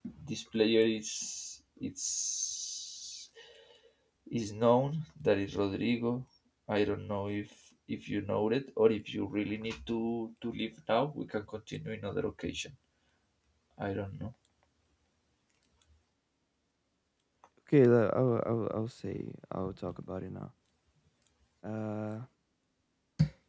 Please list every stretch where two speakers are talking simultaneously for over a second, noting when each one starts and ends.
none

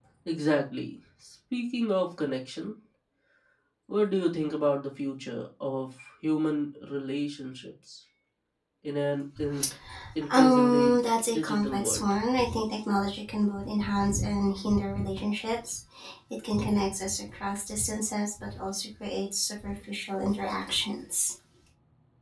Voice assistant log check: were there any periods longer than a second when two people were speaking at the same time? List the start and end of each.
10.3-12.1

